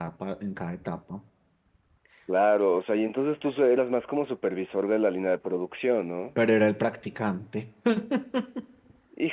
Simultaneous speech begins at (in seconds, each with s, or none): none